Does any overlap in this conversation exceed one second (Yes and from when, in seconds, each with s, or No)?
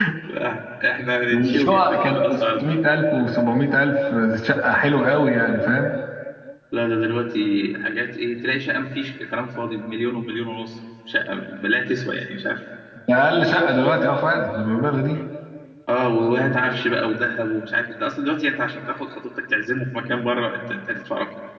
Yes, from 1.3 s